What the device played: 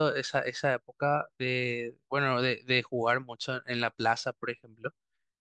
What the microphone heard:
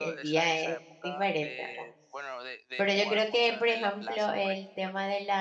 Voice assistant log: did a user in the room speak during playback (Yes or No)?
Yes